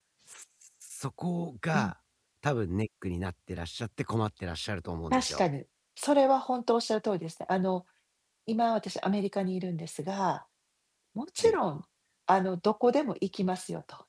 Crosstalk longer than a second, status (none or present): none